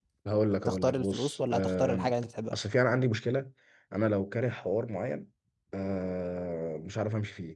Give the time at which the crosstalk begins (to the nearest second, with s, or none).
1 s